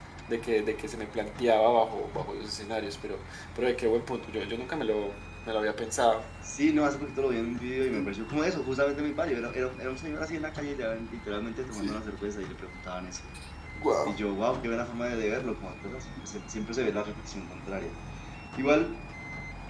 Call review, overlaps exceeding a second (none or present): none